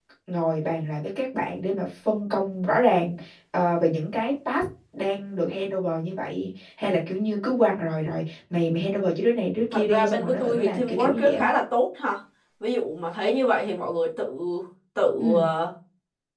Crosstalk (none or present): present